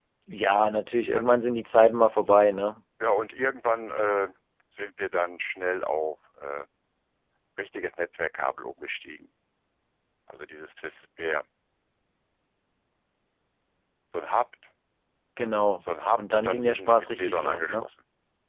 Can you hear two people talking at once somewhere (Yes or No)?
Yes